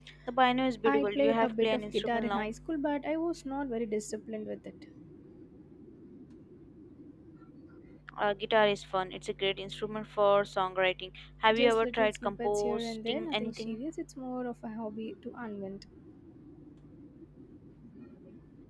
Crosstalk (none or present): present